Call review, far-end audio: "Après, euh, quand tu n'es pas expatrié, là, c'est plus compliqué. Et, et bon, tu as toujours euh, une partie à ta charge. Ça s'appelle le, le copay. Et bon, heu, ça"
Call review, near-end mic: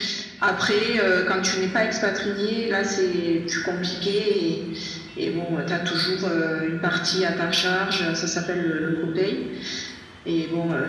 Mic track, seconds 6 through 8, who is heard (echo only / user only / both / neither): echo only